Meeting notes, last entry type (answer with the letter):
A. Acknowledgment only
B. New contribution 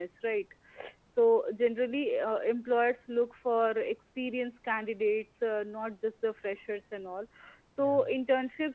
A